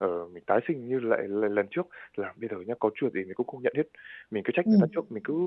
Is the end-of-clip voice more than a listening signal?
No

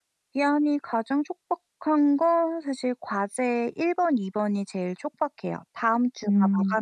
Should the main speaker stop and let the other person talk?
No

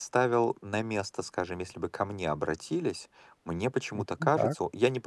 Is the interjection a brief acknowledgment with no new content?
Yes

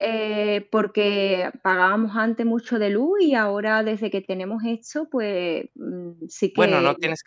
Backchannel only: No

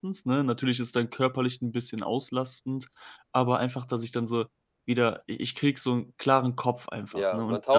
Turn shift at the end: Yes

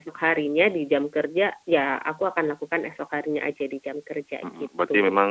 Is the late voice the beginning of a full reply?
Yes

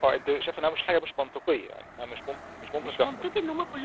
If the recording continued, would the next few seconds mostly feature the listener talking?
Yes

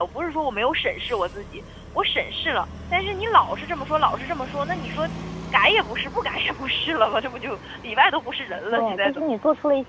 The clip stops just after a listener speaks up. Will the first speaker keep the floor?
No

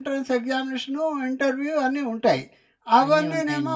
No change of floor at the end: Yes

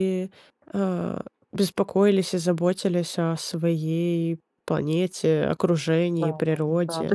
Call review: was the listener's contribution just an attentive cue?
No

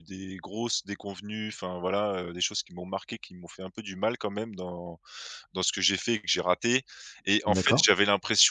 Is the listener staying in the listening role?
Yes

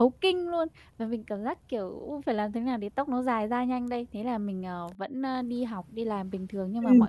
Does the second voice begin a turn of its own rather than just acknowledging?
No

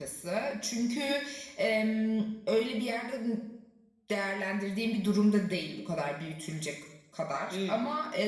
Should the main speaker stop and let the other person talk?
No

